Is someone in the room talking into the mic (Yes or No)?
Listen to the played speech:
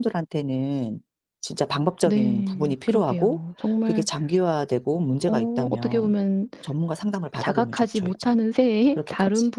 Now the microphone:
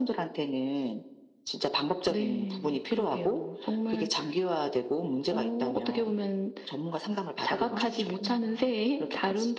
Yes